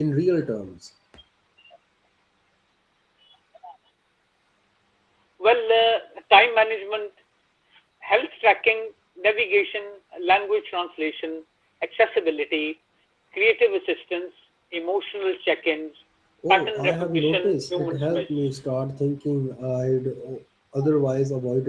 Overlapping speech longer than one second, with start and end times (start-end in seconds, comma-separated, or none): 16.5-18.5